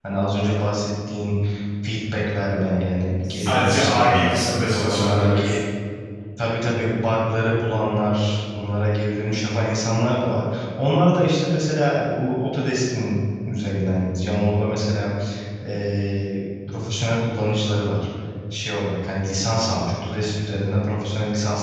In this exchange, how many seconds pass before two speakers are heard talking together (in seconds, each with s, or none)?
3.2 s